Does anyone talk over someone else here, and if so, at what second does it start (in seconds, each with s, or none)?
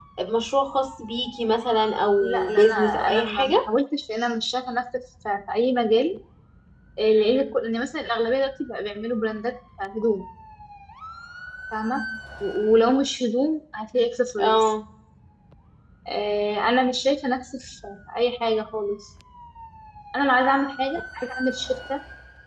2.2 s